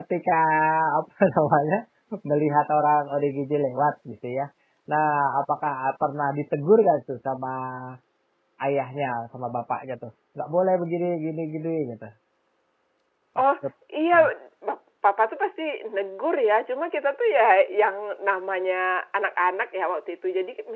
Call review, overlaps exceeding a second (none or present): none